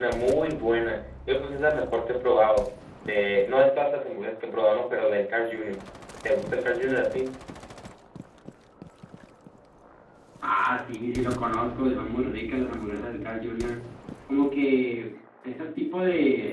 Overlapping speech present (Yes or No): No